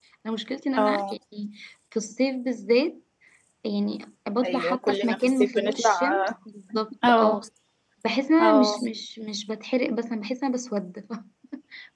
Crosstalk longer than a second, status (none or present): present